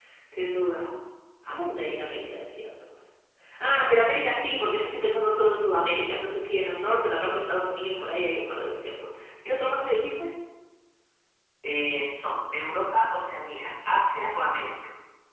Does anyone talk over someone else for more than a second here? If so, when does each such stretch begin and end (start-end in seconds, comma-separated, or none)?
none